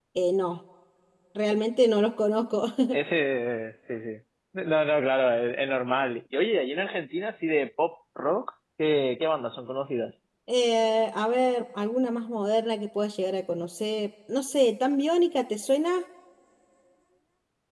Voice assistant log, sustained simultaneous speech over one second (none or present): none